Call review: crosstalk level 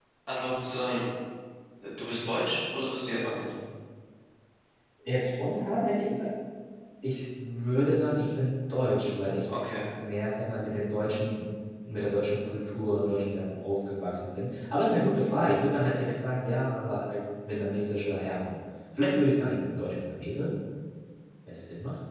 none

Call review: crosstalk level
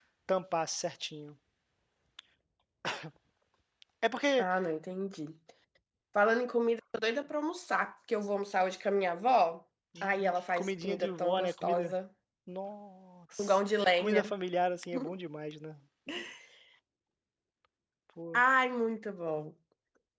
present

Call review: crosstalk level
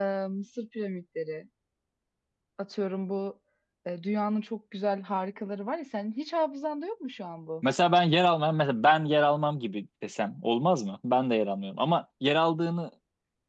none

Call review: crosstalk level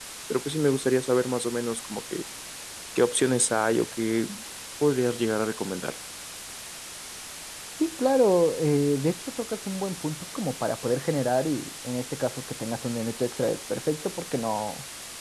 none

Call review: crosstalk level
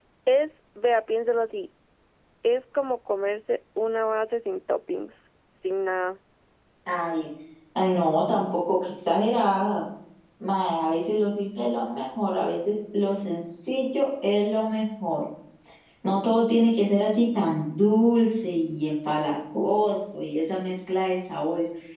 none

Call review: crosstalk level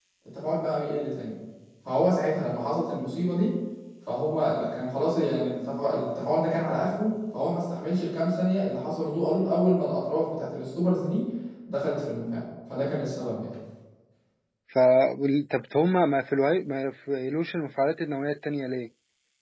none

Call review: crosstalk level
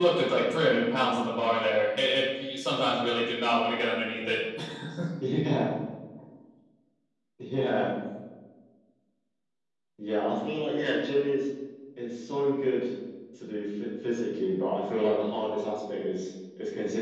none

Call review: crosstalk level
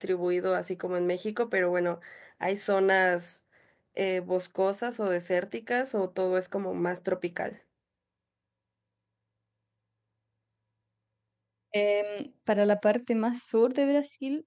none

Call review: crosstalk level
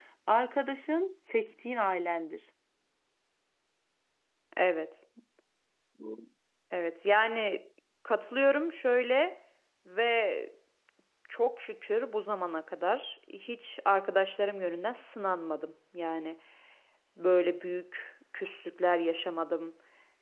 none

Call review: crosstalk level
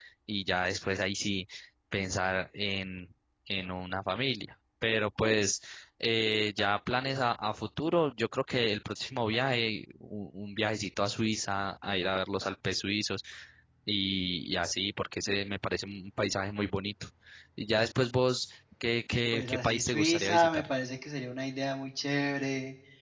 present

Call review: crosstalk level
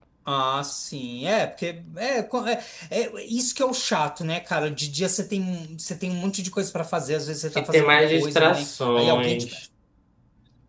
present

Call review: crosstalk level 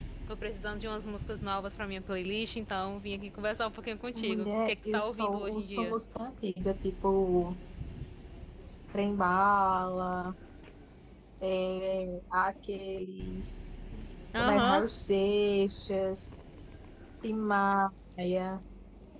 present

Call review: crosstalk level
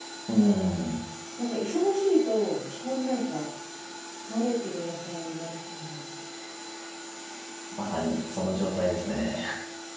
none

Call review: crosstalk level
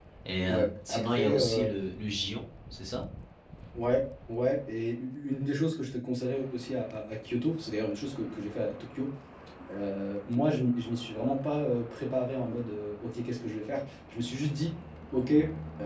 present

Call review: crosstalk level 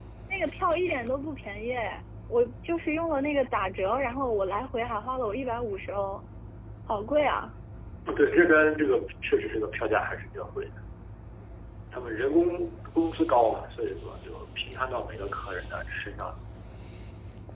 none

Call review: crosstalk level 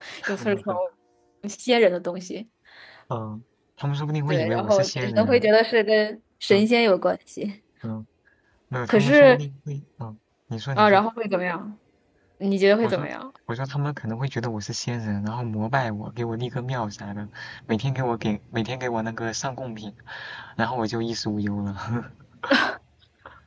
present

